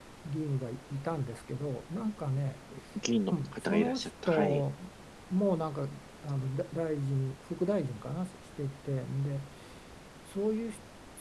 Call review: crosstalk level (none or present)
present